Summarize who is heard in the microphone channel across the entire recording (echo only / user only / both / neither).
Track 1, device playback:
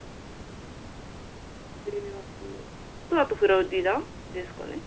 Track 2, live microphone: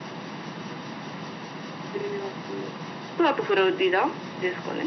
echo only